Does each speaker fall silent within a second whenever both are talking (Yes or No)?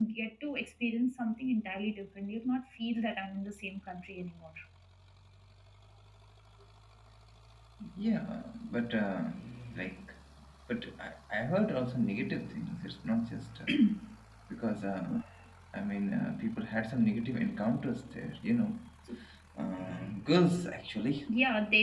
Yes